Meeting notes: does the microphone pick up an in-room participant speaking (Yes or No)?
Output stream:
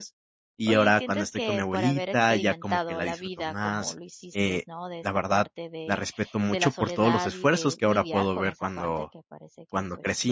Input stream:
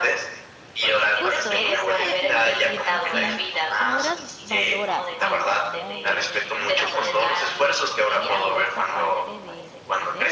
Yes